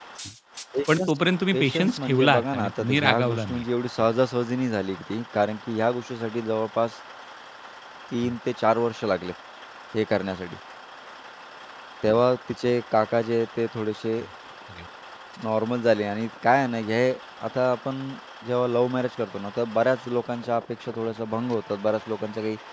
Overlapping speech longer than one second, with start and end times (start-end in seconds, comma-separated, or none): 1.5-3.6